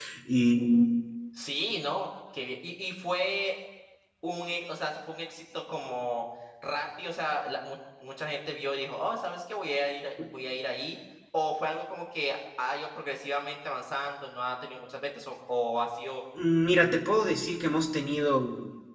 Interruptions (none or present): none